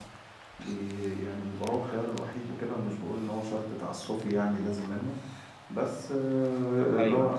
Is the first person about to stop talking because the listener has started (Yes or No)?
No